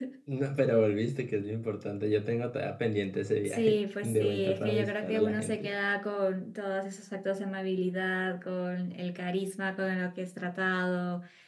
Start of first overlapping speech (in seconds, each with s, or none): 3.4 s